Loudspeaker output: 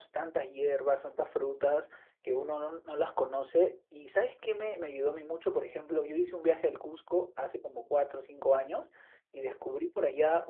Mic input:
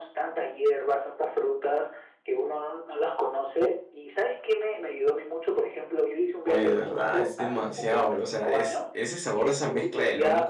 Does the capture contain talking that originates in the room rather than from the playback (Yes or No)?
Yes